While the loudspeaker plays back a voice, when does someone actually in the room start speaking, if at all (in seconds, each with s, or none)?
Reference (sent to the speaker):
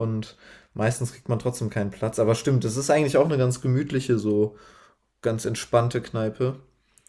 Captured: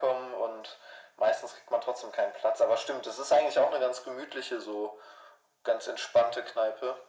none